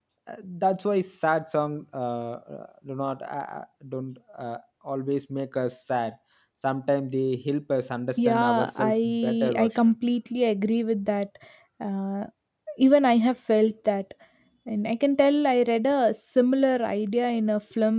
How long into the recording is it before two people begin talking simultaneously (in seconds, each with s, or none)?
8.2 s